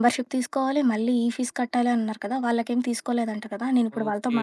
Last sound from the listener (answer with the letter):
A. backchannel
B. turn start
B